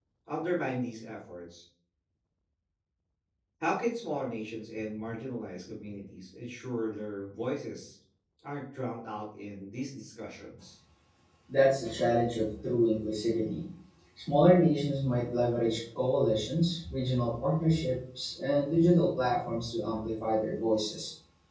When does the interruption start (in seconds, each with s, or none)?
none